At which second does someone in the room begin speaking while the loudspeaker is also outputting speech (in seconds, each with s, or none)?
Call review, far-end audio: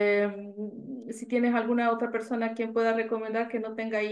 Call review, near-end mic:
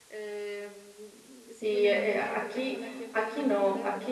1.6 s